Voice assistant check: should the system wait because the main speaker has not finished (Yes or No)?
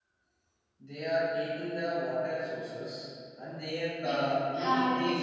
No